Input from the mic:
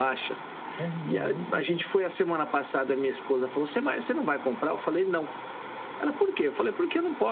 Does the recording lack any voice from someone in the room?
No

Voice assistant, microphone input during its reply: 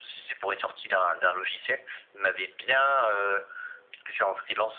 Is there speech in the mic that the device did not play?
No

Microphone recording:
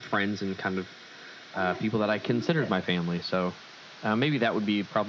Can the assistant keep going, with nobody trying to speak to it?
No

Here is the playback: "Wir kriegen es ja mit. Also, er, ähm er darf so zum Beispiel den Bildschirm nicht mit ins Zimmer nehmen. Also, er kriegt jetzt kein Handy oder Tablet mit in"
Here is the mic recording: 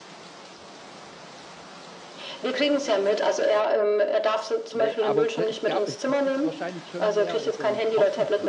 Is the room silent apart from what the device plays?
No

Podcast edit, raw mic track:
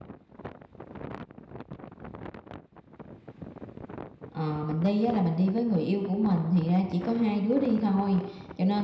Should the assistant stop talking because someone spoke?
Yes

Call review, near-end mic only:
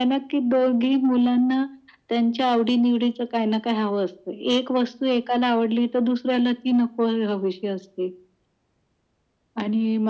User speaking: No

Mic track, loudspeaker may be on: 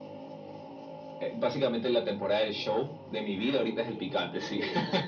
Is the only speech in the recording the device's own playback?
No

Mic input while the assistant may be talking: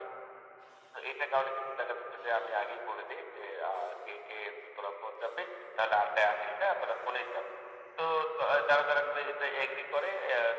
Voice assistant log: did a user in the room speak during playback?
No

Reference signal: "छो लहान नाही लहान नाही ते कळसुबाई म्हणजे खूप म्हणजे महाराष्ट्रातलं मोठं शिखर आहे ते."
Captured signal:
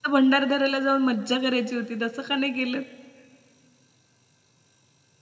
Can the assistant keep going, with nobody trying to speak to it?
No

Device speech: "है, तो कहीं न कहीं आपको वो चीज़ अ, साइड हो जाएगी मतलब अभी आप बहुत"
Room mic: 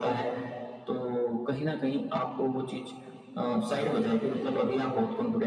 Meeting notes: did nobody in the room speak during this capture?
Yes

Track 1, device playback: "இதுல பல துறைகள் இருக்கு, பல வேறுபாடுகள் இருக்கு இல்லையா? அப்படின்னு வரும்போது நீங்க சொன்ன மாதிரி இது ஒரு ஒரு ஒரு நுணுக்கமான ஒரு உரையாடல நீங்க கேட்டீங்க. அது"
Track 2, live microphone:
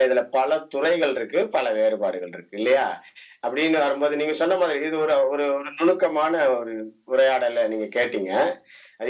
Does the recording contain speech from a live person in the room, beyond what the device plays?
No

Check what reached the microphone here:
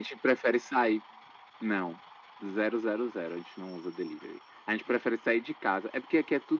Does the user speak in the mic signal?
No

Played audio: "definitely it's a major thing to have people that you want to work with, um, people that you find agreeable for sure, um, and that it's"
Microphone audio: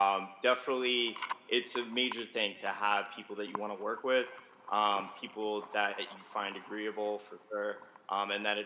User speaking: No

